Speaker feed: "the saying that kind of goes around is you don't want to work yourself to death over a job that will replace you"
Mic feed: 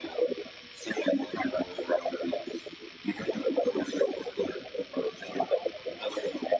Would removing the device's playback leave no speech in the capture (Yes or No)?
Yes